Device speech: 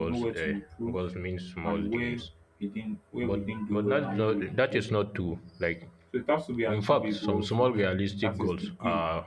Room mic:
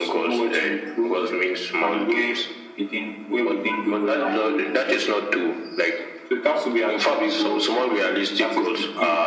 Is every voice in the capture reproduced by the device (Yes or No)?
No